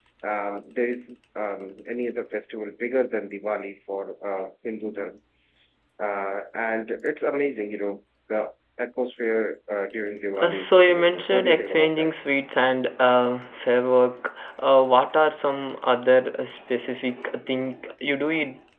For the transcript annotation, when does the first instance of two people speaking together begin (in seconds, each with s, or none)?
10.4 s